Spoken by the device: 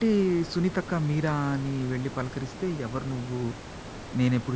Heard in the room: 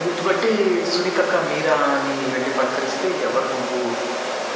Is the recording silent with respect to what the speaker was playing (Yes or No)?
No